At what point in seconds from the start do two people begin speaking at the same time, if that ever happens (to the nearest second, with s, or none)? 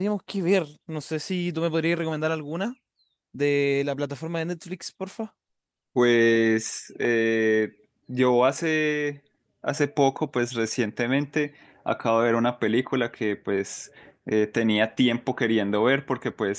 none